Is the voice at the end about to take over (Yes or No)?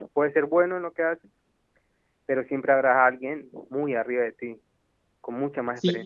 Yes